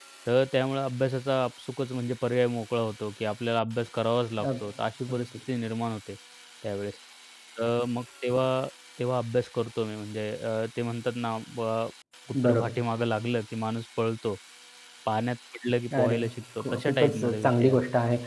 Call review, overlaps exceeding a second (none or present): present